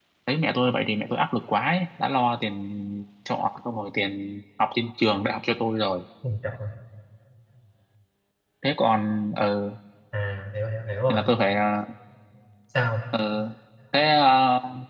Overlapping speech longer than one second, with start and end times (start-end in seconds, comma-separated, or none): none